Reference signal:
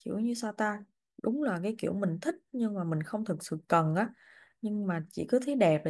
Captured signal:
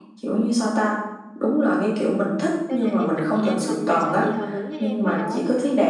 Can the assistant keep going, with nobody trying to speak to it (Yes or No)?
No